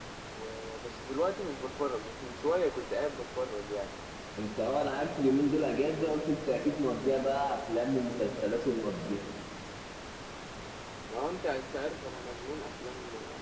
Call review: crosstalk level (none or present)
none